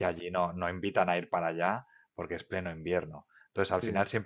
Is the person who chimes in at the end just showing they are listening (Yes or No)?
Yes